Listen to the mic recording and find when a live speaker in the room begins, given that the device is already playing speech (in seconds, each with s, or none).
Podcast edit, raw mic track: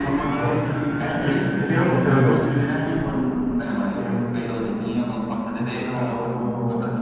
0.4 s